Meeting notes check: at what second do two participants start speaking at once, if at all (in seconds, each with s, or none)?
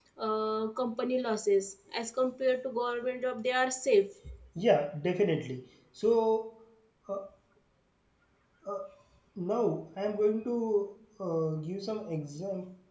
none